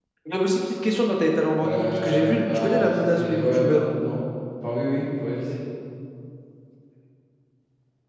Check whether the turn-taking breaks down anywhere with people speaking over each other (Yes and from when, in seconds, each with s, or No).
Yes, from 1.6 s